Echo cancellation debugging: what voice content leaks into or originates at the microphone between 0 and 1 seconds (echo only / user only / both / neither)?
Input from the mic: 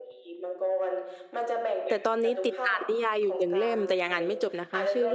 echo only